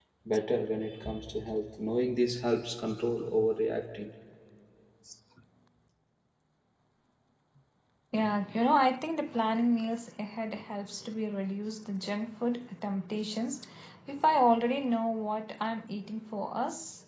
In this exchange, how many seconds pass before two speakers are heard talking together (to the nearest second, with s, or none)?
none